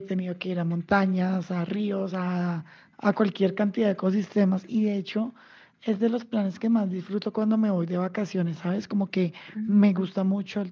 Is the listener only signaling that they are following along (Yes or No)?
Yes